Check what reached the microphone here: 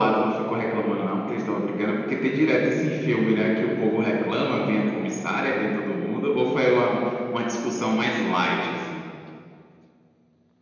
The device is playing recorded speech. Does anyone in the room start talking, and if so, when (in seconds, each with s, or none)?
none